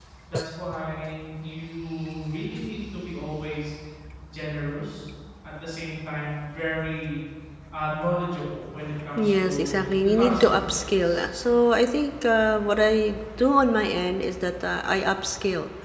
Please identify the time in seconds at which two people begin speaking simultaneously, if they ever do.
9.1 s

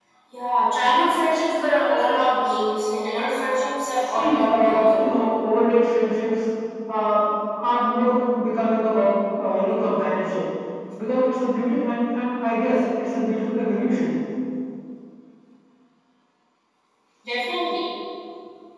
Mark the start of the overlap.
3.9 s

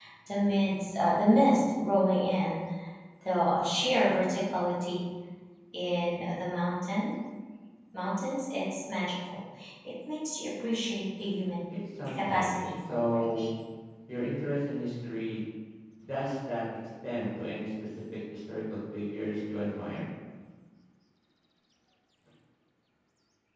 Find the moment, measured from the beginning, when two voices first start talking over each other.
12.2 s

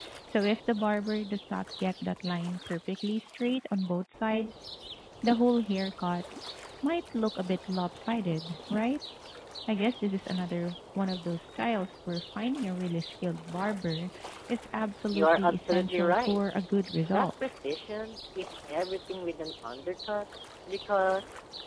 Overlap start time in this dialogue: 15.1 s

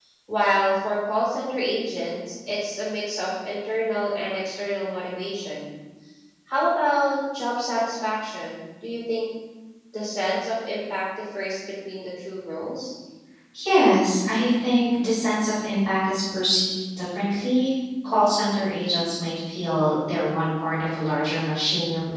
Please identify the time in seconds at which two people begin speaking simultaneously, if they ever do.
none

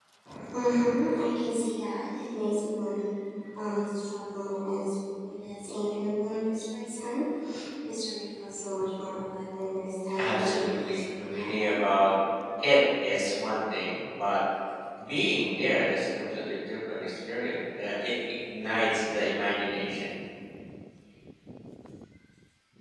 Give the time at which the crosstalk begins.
10.1 s

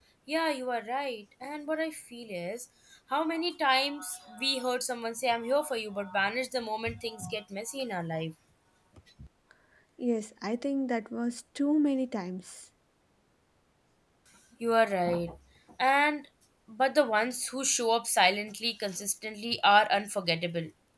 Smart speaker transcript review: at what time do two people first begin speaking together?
none

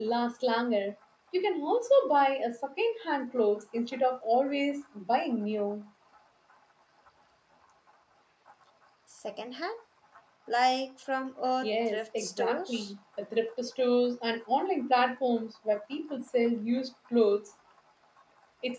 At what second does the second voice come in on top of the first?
11.6 s

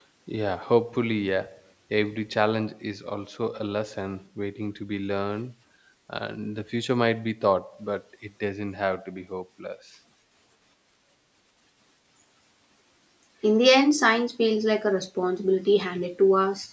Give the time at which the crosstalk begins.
none

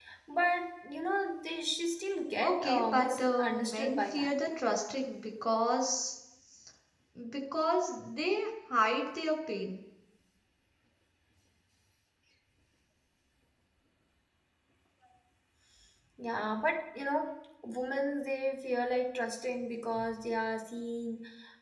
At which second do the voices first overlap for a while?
2.4 s

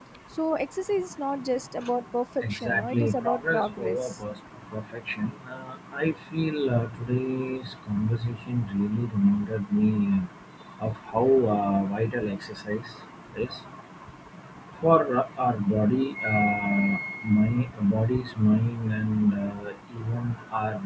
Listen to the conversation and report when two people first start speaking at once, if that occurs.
2.4 s

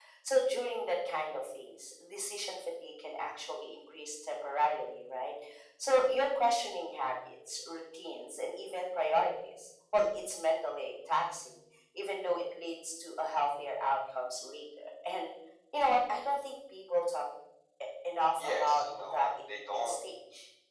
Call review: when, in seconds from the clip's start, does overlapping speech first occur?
18.4 s

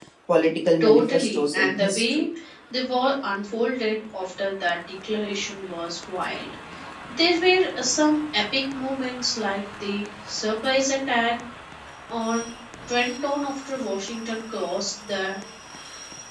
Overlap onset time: 0.8 s

